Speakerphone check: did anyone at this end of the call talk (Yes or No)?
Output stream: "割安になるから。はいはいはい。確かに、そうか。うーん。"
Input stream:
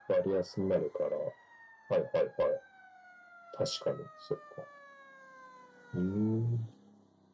No